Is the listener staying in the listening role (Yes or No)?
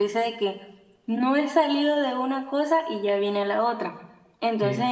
Yes